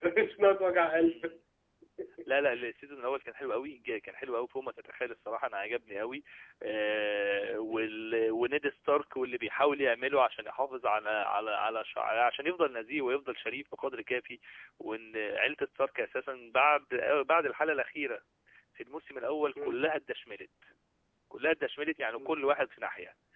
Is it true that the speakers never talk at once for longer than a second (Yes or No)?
Yes